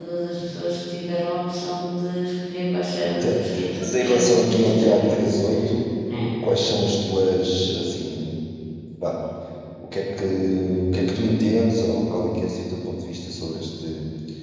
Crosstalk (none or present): present